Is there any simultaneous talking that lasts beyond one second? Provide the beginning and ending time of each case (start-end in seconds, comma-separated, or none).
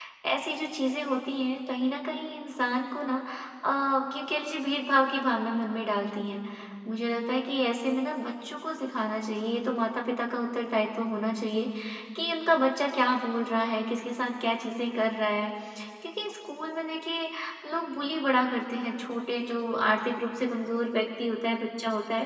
none